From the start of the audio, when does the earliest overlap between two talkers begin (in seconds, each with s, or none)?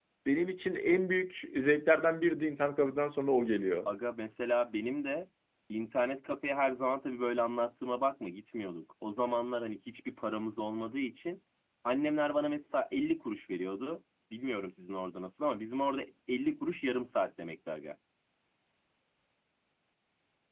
none